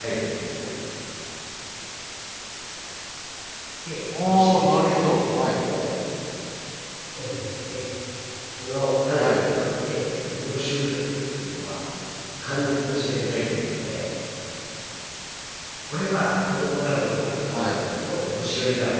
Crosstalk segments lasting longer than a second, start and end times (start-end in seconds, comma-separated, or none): 4.2-5.6